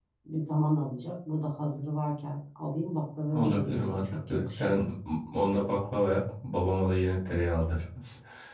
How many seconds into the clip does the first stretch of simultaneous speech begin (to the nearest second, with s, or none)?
3 s